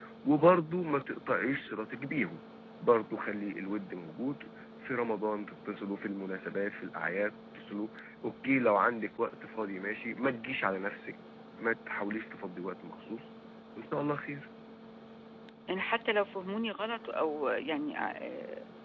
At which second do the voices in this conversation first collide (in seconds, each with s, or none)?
none